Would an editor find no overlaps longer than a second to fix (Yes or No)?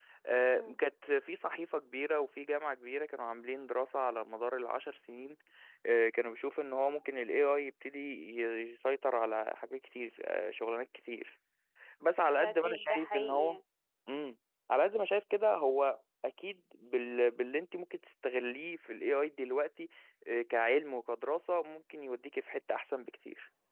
No